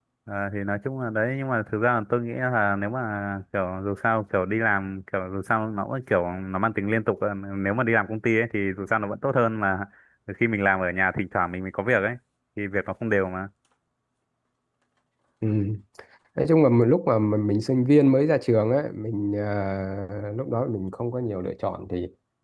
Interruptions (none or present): none